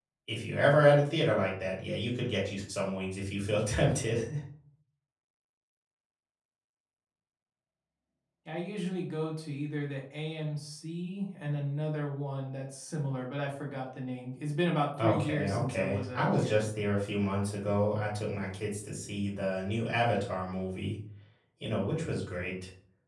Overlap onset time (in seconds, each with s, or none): 15.0 s